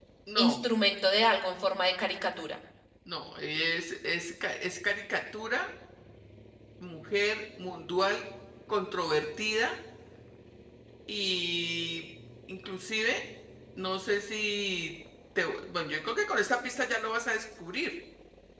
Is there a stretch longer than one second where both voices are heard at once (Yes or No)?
No